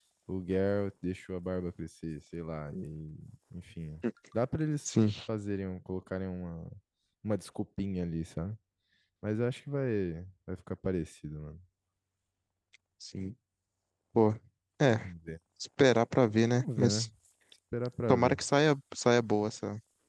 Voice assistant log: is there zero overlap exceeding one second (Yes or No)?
Yes